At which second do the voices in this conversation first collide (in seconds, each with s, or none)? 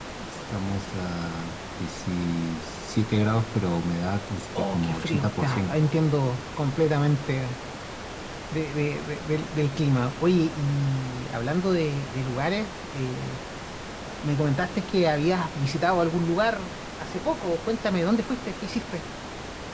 4.5 s